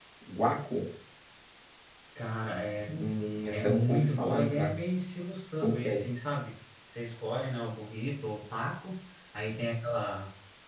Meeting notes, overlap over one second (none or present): present